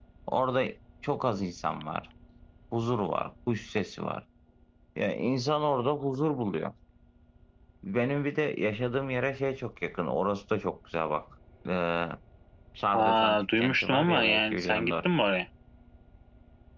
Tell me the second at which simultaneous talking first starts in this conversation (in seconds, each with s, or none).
12.9 s